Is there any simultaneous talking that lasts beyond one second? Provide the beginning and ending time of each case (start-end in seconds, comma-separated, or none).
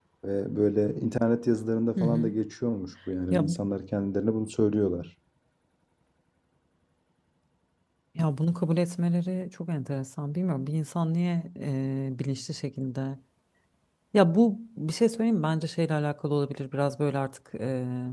none